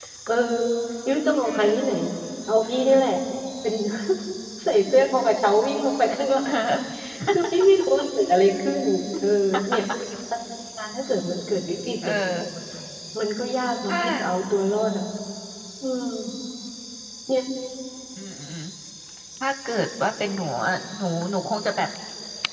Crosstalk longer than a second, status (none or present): none